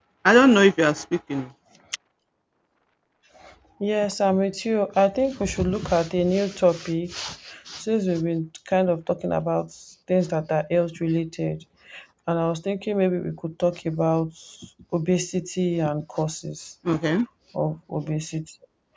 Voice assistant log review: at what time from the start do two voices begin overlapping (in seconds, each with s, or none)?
none